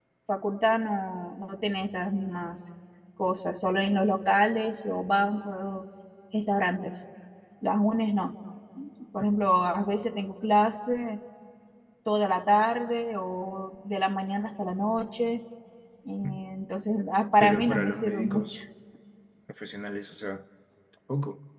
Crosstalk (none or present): present